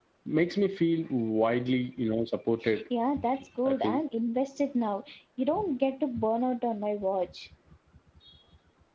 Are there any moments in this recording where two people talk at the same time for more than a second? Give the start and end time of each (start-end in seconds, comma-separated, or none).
none